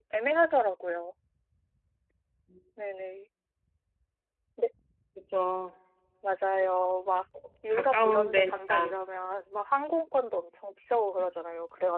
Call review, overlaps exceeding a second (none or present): present